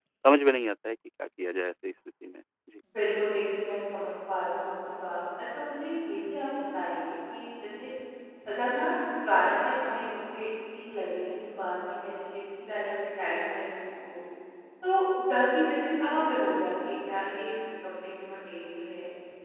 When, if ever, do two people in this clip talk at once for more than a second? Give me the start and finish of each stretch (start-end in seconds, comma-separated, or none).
none